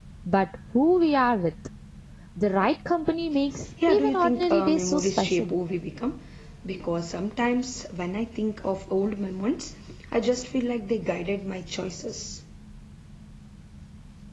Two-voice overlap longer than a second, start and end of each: 3.9-5.5

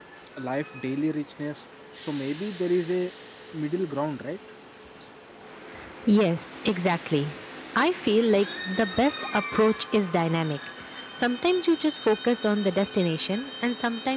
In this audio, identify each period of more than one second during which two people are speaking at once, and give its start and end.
none

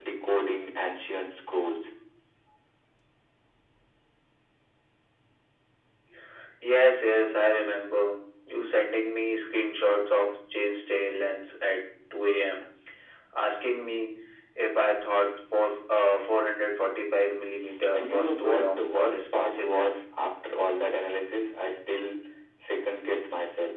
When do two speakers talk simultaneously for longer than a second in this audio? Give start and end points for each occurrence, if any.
17.9-20.0

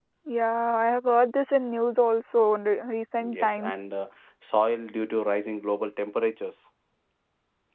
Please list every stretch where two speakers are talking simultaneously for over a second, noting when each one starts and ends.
none

